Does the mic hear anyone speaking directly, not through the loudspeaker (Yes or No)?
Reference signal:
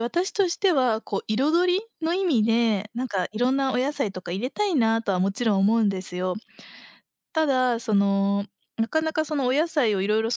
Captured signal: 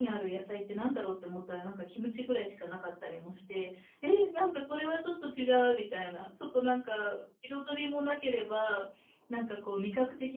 Yes